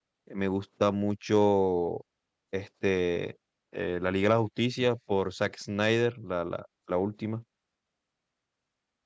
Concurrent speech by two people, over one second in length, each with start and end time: none

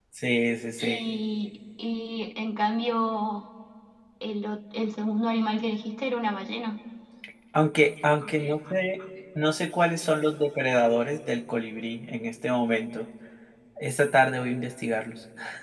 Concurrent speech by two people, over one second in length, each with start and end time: none

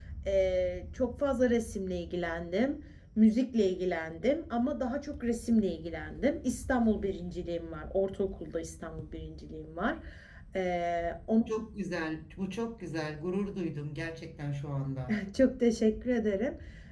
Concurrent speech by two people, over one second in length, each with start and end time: none

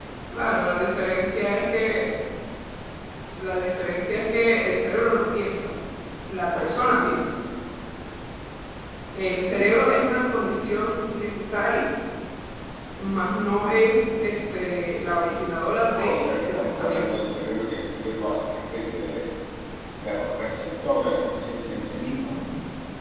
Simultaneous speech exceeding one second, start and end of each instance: 15.9-17.2

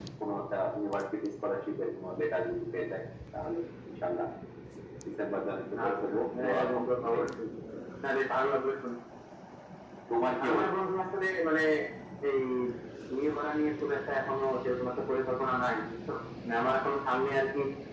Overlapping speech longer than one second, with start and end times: 5.9-7.2

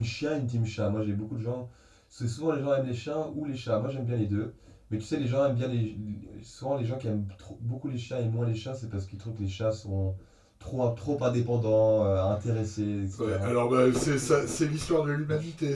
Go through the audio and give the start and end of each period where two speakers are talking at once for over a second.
none

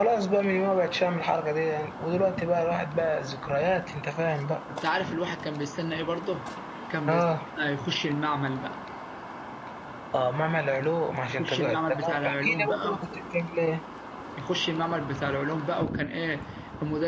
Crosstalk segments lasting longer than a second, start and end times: 11.3-13.0

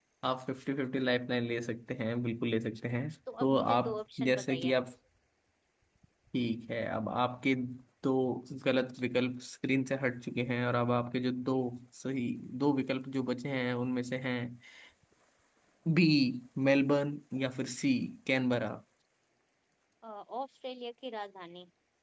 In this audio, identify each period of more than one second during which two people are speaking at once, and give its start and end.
3.4-4.7

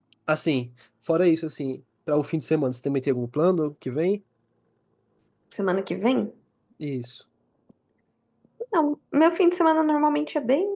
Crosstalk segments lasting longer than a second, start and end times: none

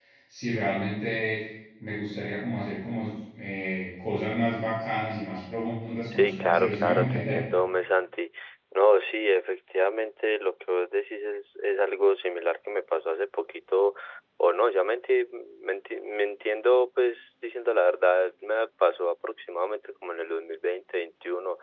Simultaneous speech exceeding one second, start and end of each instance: 6.1-7.5

